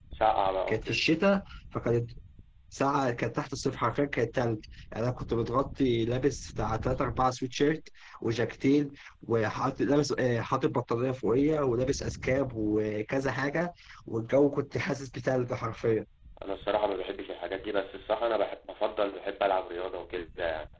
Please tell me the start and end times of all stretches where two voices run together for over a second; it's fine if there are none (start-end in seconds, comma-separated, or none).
none